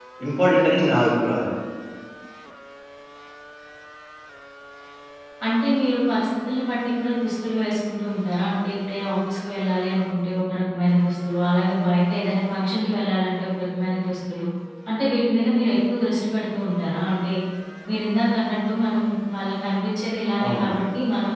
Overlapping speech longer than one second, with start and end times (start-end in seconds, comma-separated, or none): none